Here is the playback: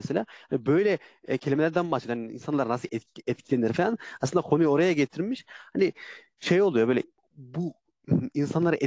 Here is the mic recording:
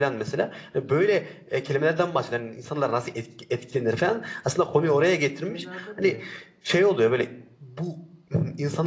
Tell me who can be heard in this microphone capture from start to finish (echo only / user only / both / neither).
both